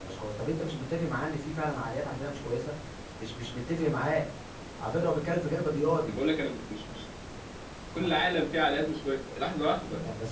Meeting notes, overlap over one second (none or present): none